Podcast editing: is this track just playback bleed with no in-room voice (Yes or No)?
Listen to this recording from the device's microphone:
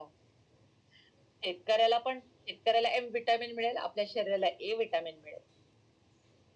Yes